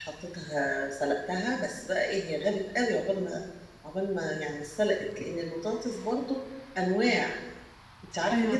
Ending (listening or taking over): taking over